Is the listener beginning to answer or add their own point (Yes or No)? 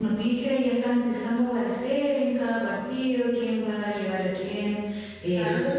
No